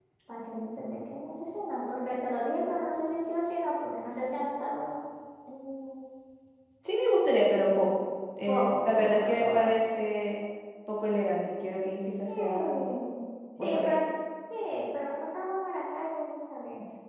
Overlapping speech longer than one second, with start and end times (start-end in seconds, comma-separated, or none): 8.5-9.7